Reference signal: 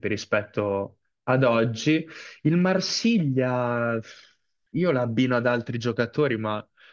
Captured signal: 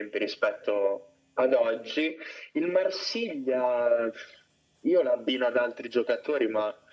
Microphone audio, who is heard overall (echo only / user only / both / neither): echo only